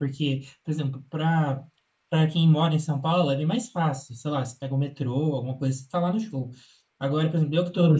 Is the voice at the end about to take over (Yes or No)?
No